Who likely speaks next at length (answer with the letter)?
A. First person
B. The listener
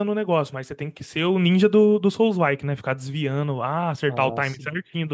A